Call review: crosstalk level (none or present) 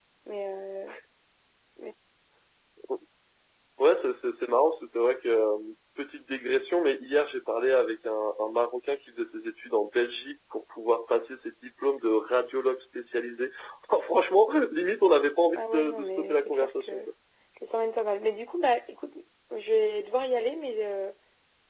present